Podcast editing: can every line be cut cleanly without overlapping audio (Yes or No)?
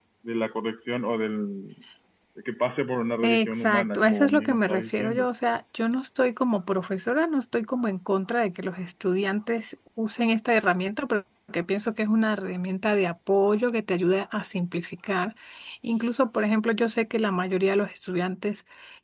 No